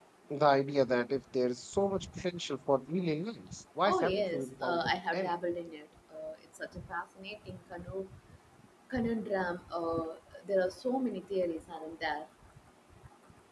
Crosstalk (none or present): present